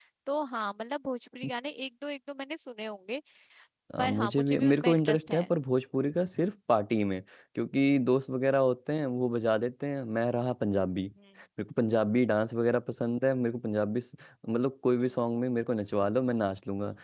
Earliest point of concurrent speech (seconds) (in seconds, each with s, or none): 4.0 s